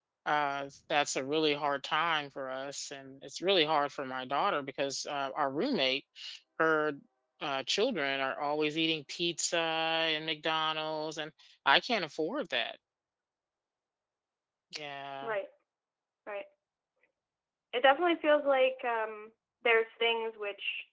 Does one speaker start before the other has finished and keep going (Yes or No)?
No